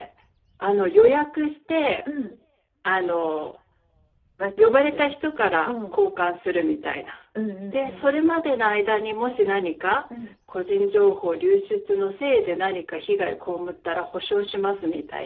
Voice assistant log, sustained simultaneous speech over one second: none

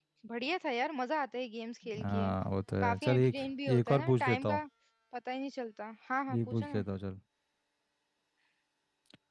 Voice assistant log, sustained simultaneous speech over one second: present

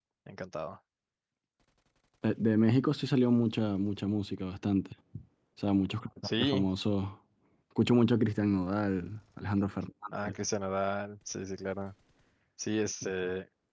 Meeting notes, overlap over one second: none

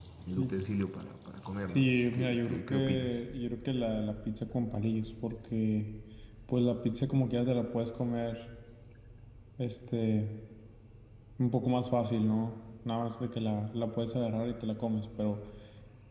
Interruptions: present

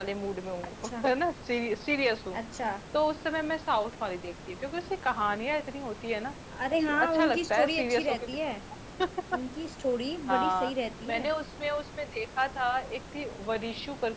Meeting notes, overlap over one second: present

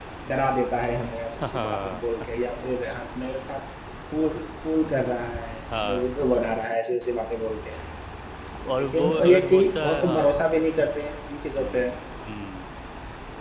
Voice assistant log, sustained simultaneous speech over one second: present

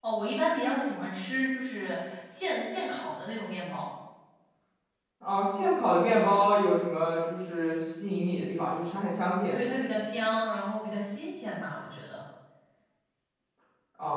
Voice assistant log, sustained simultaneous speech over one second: none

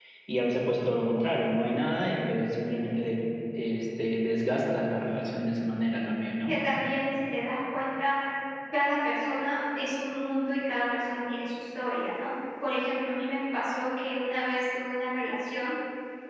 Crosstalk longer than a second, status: none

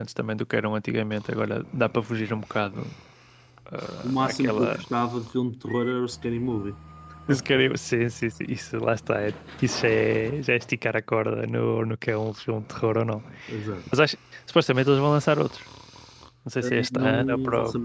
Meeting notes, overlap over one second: present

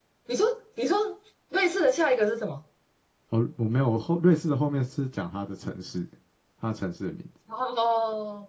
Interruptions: none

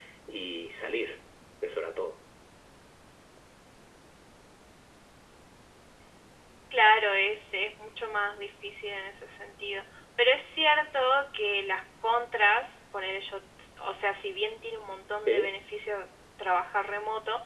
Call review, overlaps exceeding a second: none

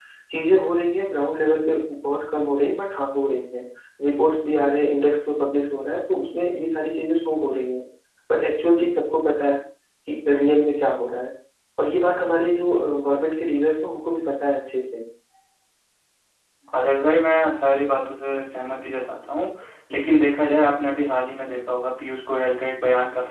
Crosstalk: none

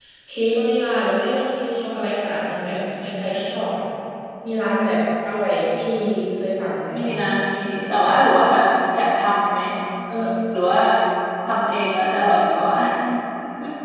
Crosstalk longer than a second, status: none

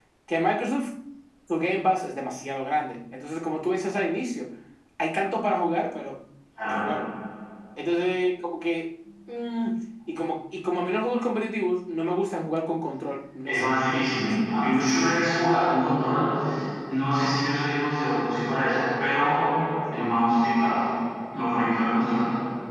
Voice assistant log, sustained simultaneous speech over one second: present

